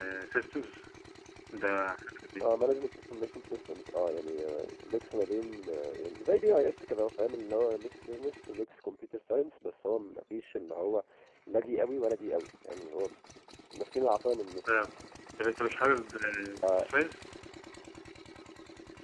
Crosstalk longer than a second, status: none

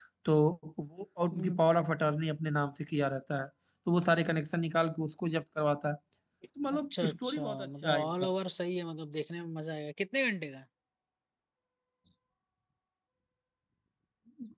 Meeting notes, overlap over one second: present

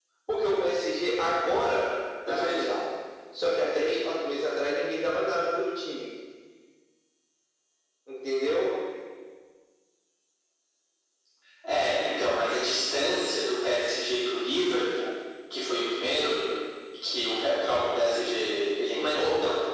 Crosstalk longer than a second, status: none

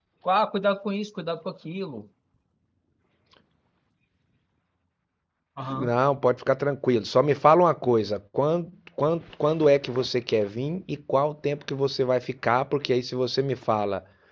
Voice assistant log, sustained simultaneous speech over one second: none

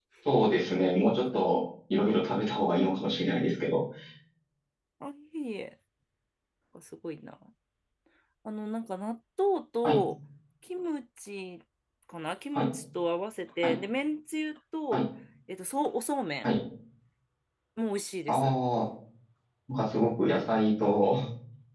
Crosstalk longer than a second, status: none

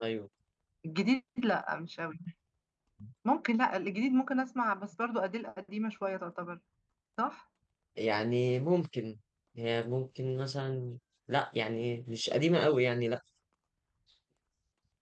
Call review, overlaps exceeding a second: none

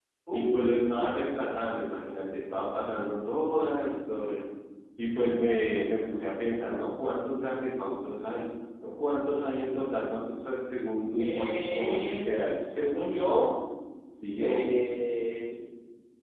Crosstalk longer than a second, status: present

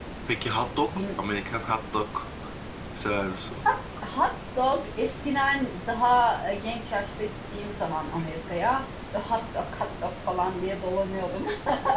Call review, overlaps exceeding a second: none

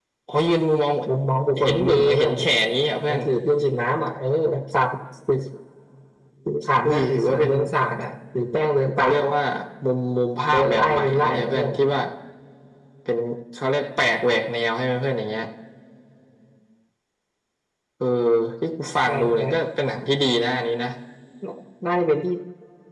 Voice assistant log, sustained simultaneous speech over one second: present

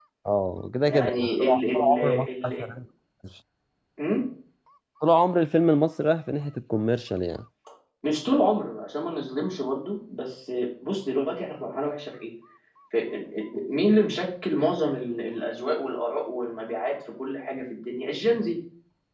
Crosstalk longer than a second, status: present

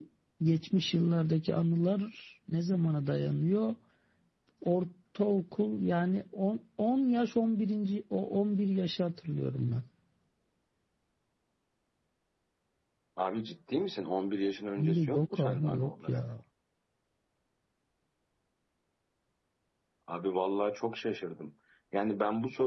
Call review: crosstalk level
present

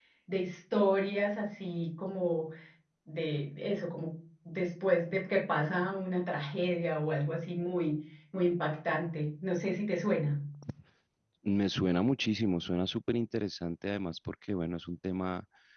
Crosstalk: none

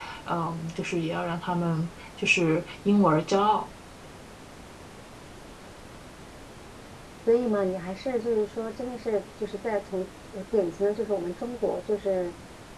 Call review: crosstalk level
none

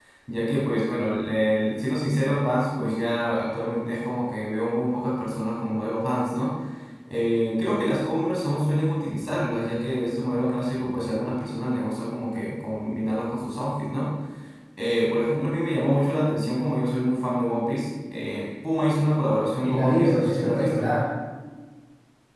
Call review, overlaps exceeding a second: present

